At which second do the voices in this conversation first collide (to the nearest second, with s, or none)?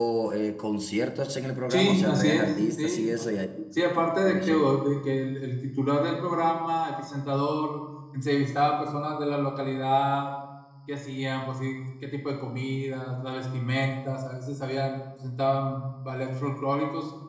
2 s